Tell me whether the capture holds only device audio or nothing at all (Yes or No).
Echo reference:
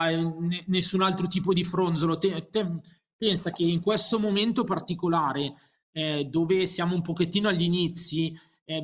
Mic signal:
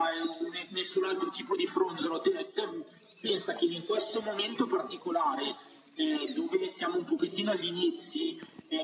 Yes